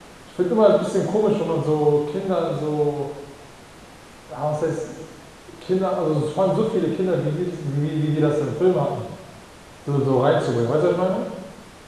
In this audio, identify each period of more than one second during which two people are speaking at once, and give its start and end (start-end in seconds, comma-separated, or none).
none